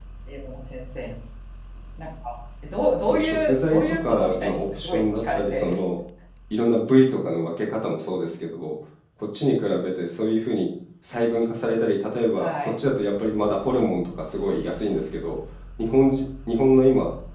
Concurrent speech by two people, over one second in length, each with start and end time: 3.0-5.8

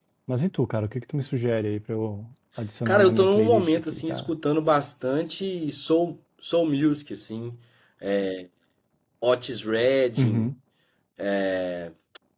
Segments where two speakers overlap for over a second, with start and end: 2.9-4.3

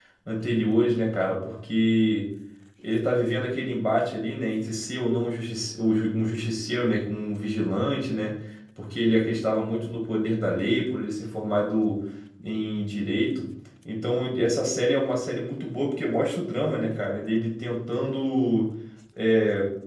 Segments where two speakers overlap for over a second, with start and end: none

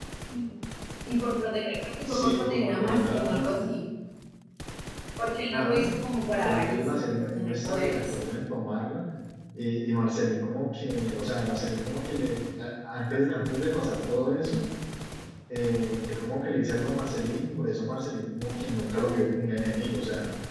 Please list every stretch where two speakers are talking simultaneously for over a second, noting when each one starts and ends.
2.0-3.6, 6.4-8.2

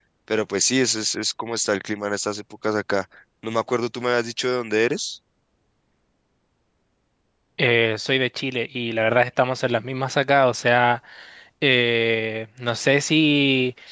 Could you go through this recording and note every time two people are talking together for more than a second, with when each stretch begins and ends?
none

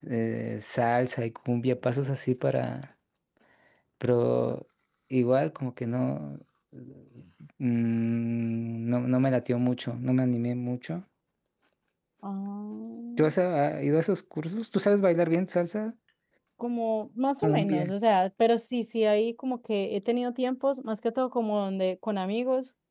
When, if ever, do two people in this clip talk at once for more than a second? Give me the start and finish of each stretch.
none

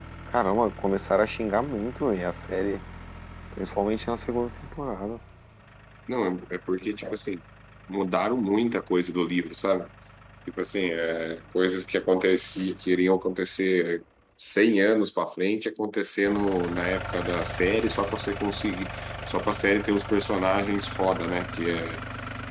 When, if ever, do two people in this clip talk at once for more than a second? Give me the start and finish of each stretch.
none

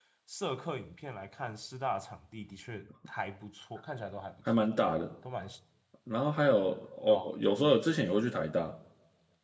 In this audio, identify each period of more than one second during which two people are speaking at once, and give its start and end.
none

